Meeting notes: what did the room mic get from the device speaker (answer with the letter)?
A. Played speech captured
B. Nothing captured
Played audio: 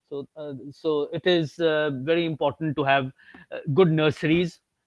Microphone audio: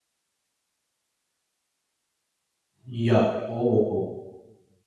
B